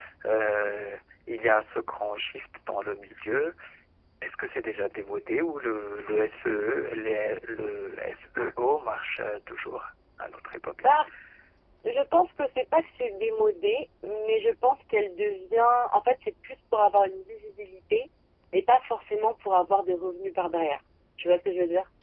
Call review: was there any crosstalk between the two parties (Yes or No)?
No